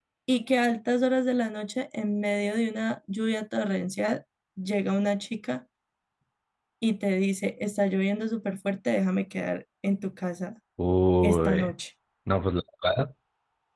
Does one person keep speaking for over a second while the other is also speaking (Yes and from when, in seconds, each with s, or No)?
No